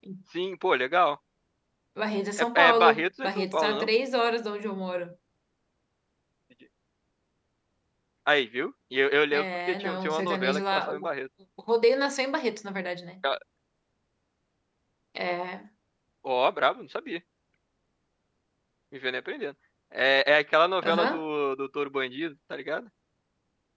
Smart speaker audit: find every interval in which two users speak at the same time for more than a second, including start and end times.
2.6-3.9, 9.3-11.1

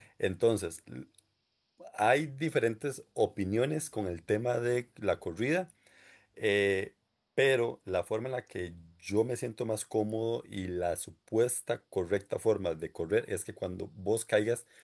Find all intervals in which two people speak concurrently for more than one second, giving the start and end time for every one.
none

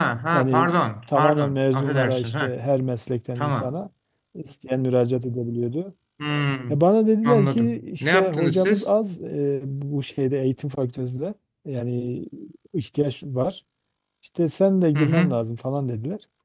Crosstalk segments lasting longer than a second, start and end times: 1.1-2.5, 7.2-8.9

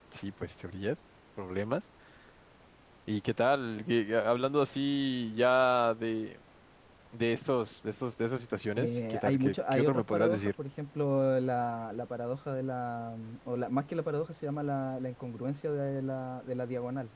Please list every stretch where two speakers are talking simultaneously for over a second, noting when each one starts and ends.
8.8-10.5

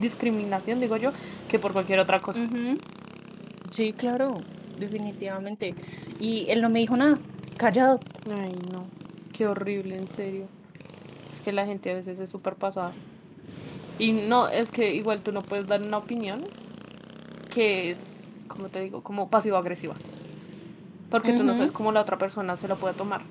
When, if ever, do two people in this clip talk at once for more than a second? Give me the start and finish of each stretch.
none

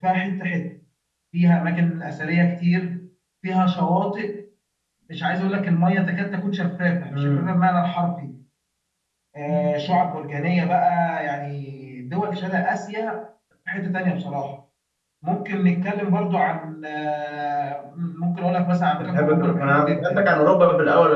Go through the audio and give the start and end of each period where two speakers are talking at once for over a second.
19.0-20.2

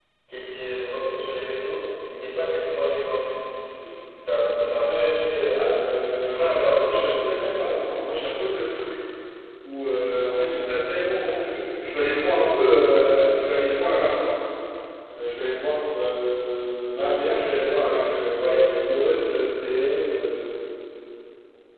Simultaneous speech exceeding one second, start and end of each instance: 6.2-7.6

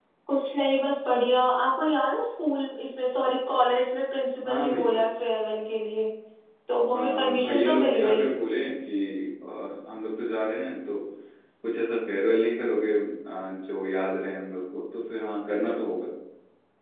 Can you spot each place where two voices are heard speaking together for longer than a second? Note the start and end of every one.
6.9-8.2

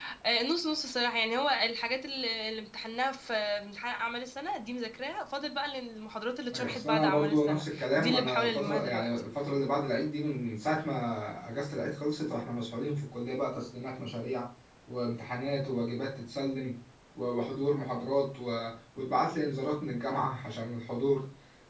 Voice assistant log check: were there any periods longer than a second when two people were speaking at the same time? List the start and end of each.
6.5-9.1

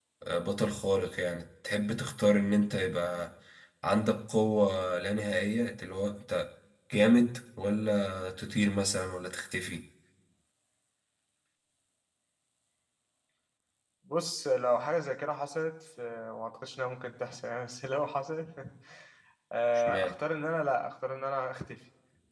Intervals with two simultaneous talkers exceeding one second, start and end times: none

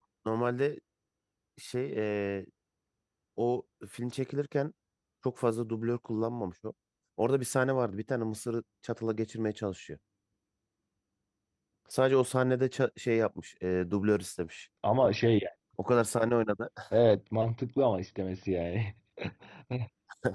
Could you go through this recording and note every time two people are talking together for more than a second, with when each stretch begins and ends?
none

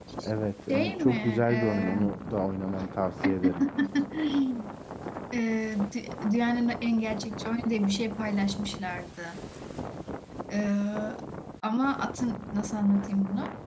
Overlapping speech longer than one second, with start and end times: 0.7-2.0

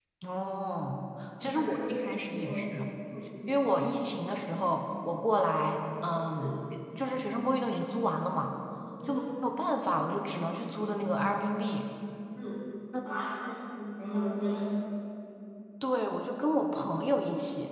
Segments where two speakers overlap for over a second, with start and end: 1.4-2.6

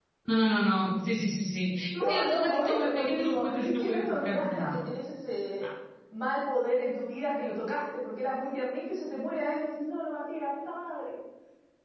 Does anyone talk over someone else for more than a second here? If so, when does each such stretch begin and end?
1.9-4.8

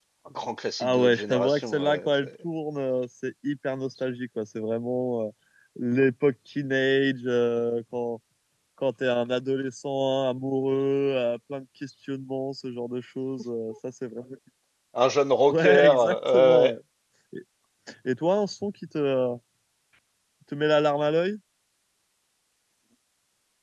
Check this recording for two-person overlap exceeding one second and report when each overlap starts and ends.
0.8-2.3, 15.5-16.7

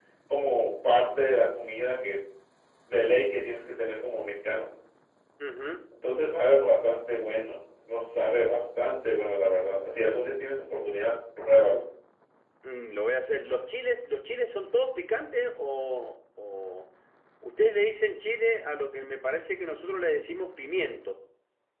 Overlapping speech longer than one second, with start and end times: none

